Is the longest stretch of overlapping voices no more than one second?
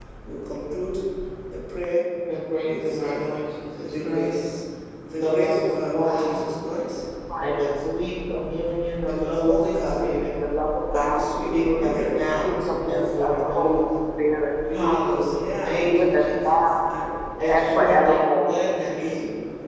No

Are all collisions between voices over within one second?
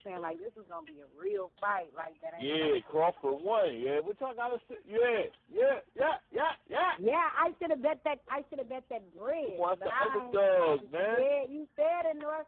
No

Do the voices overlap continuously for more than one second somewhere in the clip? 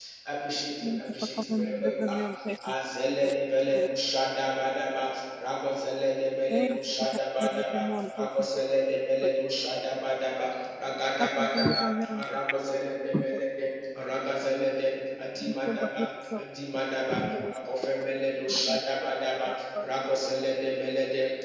Yes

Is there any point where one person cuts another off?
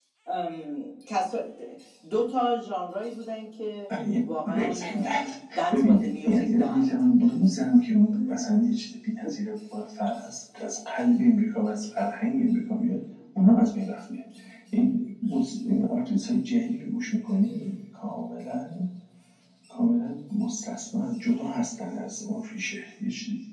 Yes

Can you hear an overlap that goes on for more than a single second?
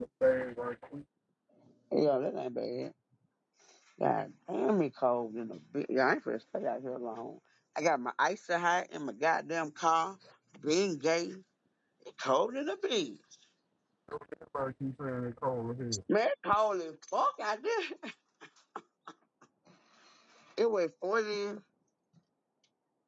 No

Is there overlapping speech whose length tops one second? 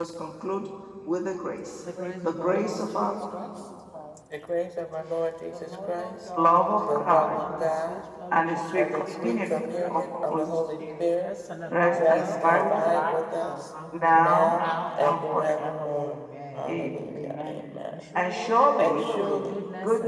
Yes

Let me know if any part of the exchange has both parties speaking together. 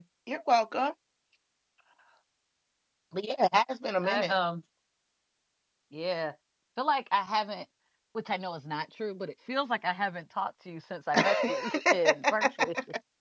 Yes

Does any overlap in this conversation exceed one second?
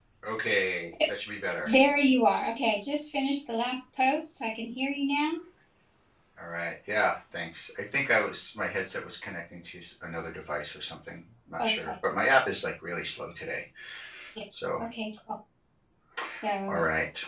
No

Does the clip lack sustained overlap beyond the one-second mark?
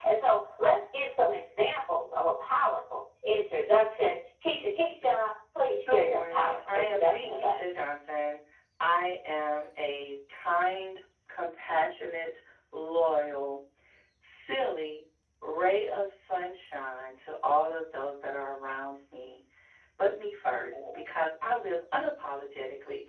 No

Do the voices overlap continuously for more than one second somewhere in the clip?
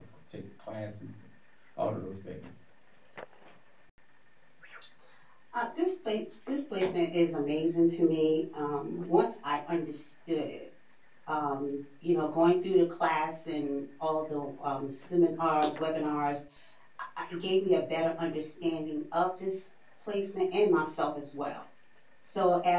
No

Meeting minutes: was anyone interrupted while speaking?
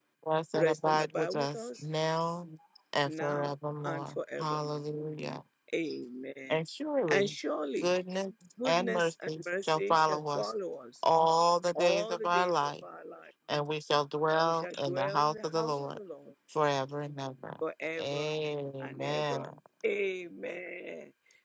Yes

